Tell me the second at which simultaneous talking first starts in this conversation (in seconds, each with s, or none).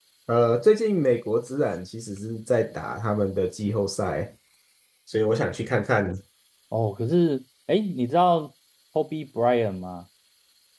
none